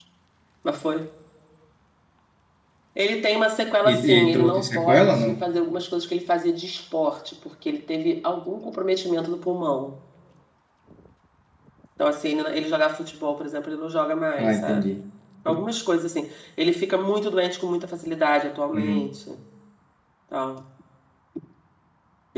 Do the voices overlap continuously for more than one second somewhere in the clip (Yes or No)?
Yes